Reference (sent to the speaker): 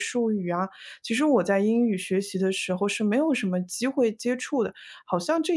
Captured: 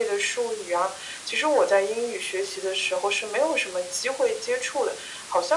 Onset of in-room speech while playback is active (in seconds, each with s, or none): none